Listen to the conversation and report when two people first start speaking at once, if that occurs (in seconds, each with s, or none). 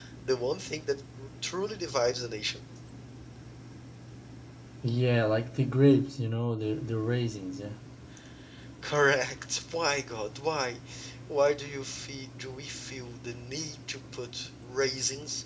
none